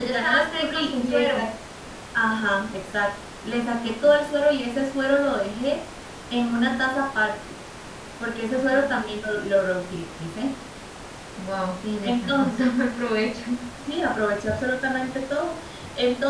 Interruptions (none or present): present